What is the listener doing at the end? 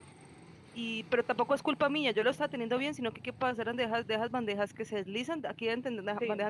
listening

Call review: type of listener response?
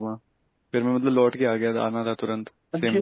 taking over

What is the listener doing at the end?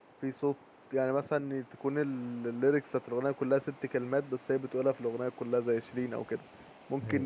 listening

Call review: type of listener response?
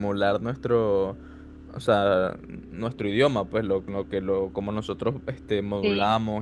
listening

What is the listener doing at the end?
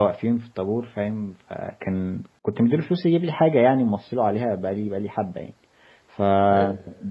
listening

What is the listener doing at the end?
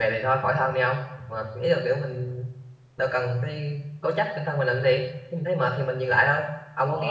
listening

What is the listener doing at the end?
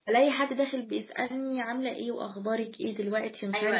taking over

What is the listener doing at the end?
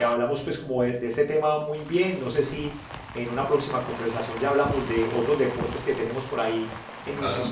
listening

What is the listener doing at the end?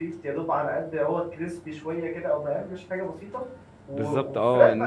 taking over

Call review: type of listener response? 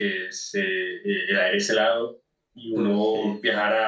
listening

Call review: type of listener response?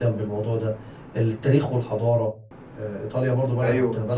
taking over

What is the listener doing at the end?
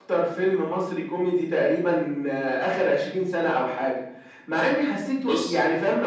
listening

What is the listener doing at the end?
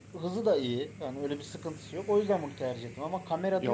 taking over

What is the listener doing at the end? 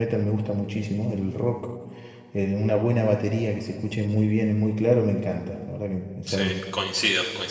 taking over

